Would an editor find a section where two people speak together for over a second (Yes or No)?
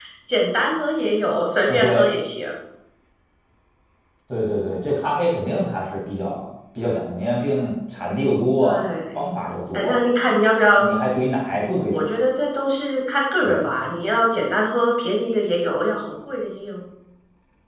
No